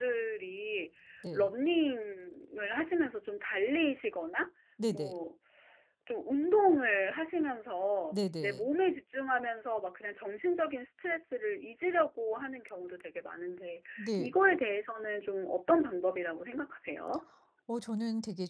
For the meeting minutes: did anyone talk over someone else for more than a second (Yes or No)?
No